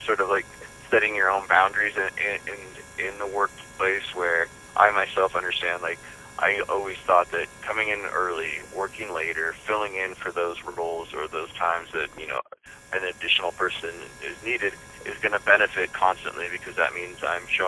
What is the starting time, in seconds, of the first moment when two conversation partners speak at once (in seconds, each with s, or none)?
none